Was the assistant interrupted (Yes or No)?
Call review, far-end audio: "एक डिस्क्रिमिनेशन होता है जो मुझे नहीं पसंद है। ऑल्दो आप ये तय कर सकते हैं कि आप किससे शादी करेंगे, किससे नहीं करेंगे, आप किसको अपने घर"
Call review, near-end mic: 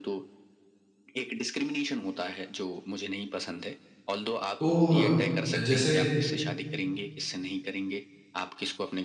Yes